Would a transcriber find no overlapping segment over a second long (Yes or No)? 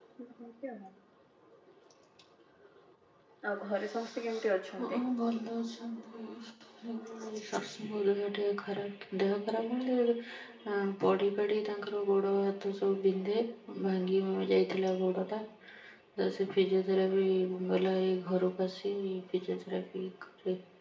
Yes